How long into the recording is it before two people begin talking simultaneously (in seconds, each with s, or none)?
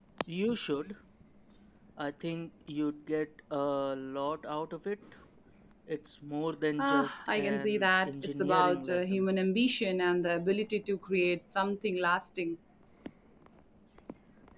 6.8 s